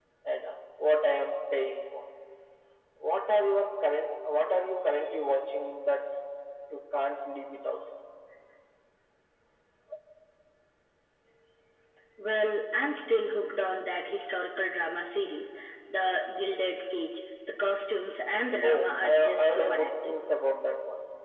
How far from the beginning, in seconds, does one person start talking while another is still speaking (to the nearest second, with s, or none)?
18 s